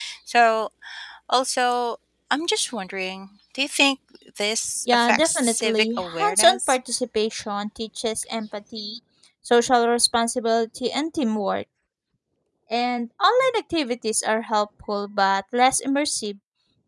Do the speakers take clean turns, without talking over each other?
No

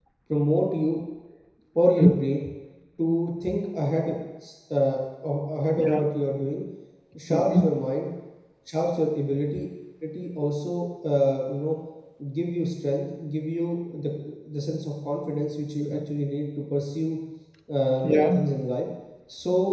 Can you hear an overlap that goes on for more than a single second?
No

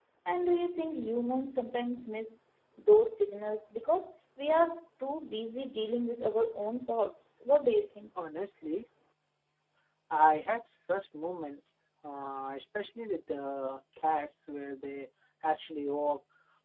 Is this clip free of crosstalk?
Yes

